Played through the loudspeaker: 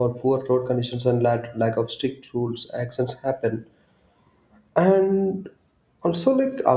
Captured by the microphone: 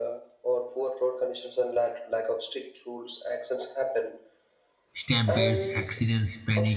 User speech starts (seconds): 5 s

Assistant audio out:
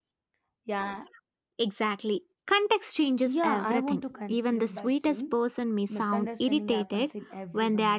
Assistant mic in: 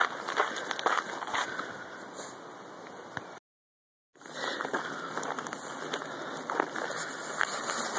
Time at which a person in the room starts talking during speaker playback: none

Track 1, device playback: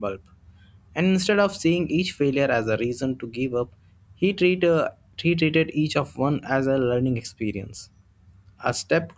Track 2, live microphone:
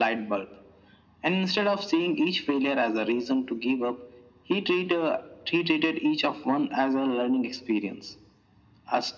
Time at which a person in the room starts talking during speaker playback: none

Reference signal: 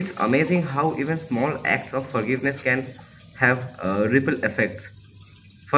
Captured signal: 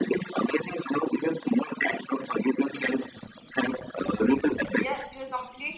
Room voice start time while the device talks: 5 s

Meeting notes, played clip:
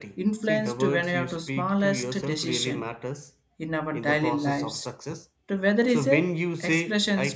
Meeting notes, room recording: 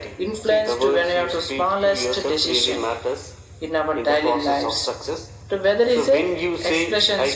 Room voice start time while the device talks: none

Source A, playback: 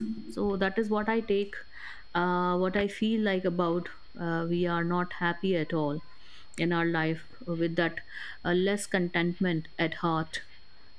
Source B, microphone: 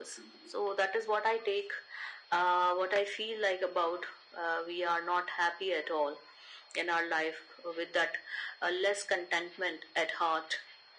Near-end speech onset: none

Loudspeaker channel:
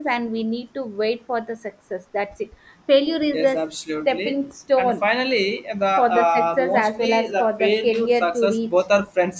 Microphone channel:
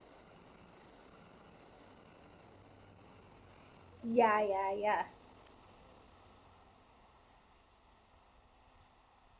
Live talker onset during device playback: 4 s

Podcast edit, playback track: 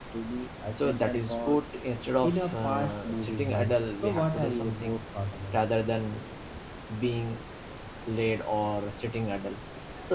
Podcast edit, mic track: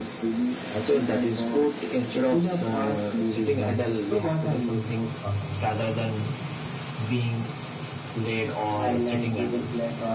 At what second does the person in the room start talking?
9 s

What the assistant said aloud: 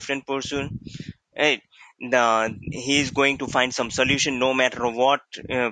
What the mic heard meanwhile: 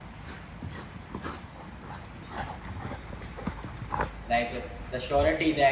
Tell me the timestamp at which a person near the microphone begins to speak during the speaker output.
4 s

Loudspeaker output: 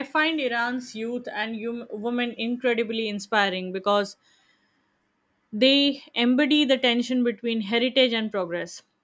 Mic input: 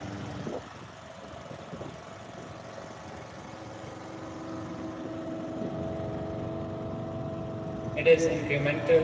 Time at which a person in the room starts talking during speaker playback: 8 s

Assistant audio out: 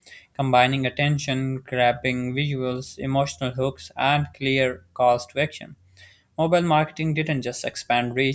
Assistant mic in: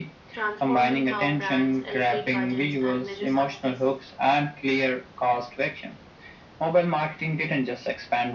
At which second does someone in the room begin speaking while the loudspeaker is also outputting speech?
0 s

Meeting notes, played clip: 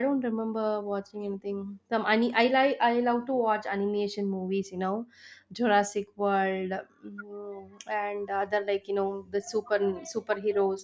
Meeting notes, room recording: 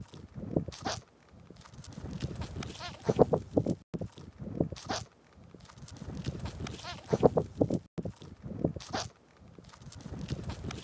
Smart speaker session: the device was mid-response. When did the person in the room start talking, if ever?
none

